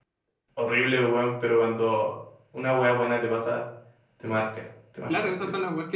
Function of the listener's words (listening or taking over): taking over